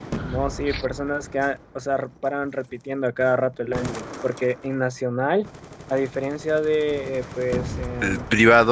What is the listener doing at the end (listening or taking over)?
taking over